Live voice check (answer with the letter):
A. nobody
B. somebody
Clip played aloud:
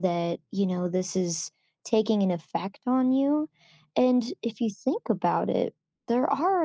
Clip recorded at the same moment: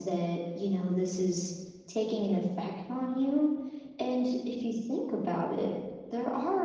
A